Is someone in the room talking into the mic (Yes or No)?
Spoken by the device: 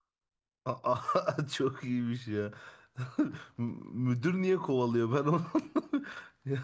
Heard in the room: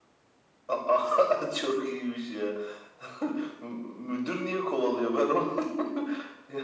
No